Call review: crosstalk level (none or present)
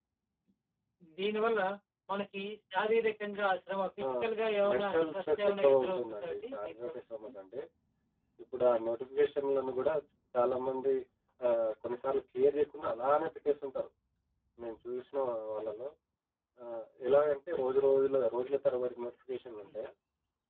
present